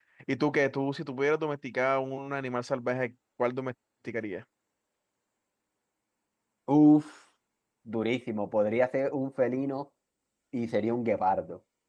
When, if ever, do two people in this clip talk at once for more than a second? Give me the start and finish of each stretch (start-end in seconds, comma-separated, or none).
none